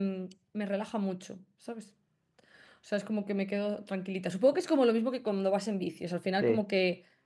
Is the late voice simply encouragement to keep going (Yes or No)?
Yes